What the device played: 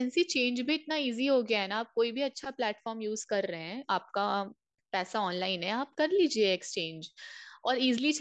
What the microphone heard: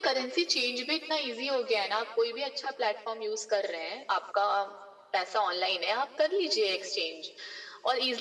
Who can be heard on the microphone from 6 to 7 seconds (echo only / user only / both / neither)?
echo only